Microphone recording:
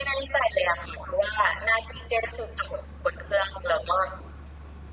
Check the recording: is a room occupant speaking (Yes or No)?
No